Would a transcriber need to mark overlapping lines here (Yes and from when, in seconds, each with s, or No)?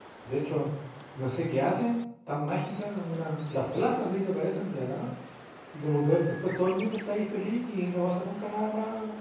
No